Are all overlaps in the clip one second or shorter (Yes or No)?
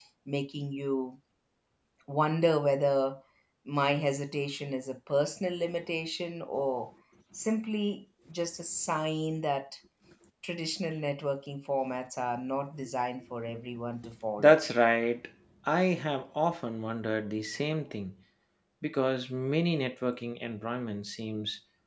Yes